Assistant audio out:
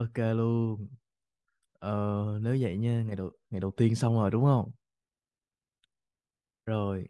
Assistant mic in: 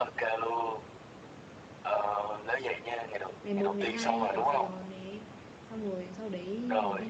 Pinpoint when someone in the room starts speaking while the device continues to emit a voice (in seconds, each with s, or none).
3.4 s